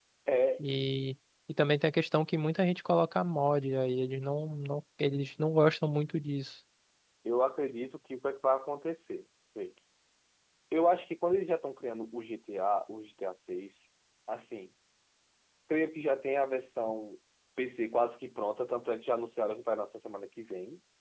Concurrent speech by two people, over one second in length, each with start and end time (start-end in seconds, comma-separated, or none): none